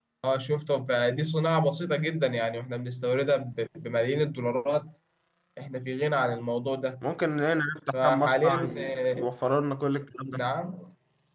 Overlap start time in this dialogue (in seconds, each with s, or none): 7.9 s